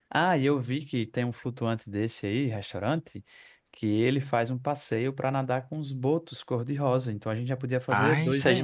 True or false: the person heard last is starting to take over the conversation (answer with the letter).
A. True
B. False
A